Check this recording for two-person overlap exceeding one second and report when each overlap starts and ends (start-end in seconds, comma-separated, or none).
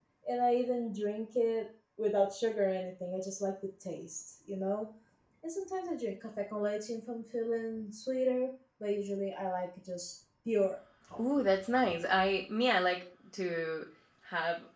none